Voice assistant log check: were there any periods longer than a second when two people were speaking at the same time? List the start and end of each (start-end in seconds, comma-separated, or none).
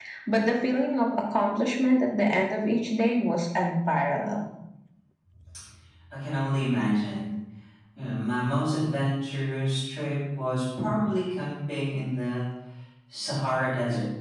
none